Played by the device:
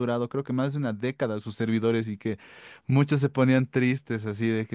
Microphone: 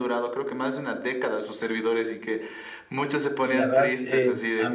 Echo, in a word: present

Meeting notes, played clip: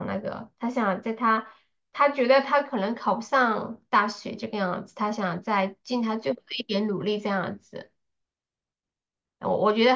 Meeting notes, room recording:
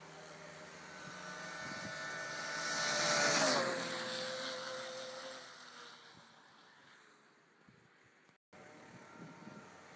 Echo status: none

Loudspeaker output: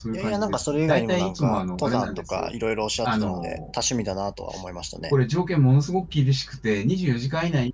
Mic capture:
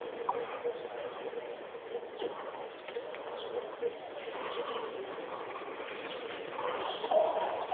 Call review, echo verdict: none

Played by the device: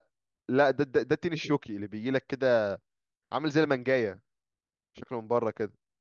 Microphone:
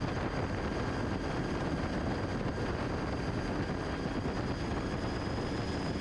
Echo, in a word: none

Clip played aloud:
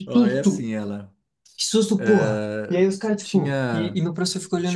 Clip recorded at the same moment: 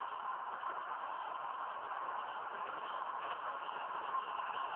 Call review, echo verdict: none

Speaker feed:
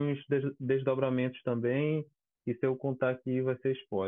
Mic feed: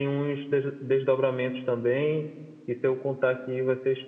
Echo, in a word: present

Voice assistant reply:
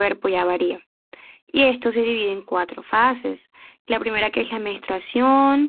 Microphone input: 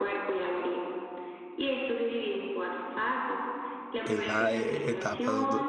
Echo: present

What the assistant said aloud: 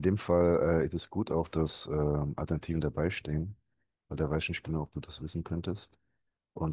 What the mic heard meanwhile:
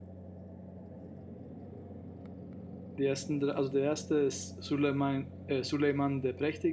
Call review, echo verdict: none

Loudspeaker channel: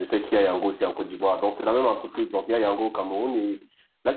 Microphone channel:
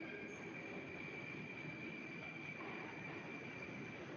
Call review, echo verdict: none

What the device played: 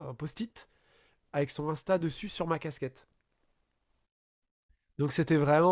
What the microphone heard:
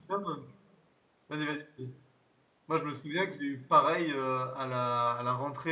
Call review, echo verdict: none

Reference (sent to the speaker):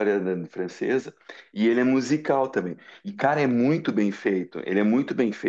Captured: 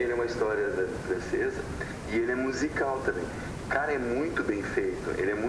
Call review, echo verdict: present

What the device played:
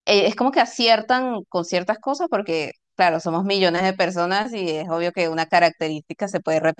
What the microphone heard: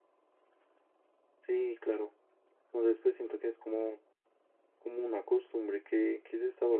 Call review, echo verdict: none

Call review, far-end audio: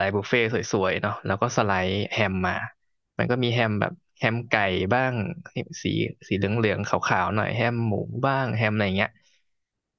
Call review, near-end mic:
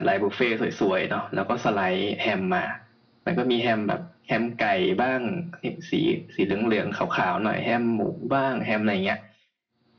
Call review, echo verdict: present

